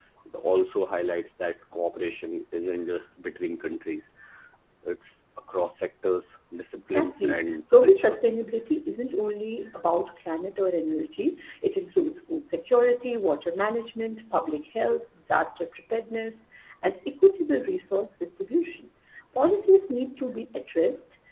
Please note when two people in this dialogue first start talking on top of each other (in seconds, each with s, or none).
6.9 s